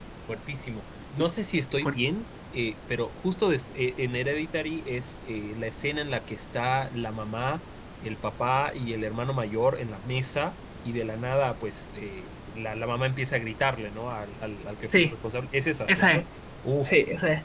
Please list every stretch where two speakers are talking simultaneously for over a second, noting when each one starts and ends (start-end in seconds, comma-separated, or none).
none